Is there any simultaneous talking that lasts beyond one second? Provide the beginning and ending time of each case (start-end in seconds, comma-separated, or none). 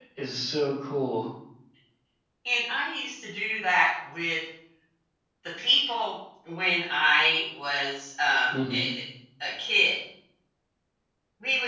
none